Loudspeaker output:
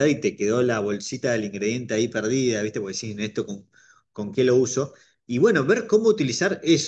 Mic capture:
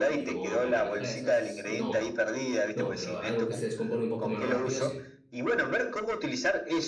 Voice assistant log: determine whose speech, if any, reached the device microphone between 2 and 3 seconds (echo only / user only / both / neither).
both